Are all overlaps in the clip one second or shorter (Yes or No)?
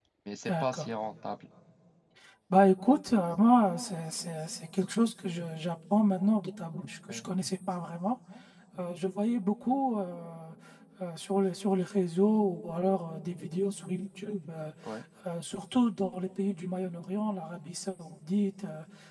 Yes